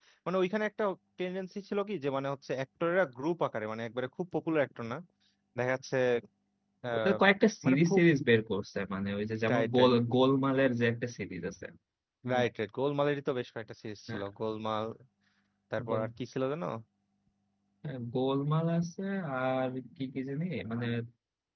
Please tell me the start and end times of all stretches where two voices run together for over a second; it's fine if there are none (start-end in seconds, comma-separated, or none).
none